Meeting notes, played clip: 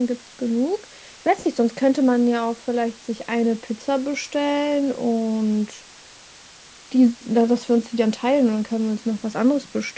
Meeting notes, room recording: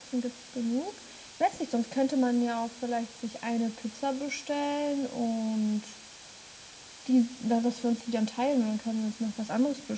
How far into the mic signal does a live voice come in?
none

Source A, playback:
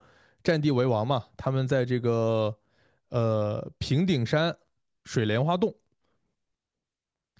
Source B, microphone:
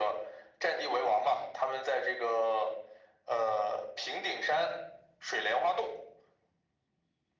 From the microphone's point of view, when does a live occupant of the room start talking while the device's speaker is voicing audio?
none

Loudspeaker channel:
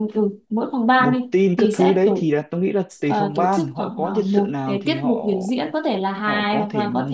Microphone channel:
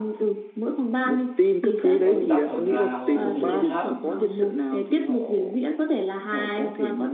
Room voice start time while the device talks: 2.0 s

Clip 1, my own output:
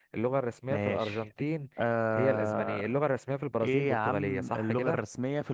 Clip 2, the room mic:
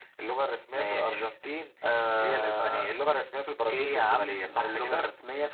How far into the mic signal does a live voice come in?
none

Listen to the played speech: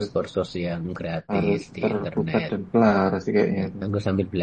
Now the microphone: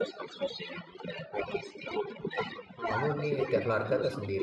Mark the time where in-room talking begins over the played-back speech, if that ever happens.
2.9 s

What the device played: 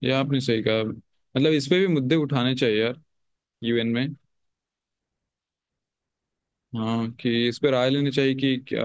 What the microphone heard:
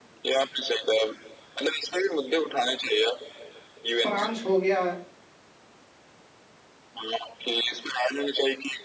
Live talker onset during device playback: 4.0 s

